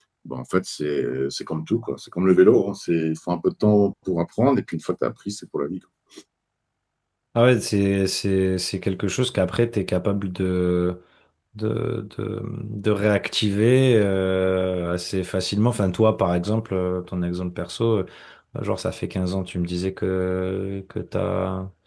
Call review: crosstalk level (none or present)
none